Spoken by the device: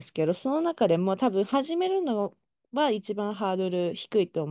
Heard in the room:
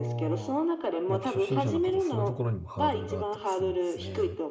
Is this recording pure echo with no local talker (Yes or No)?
No